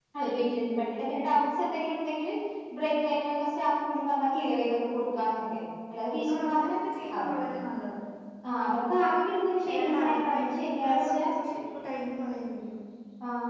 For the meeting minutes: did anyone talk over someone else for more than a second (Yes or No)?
Yes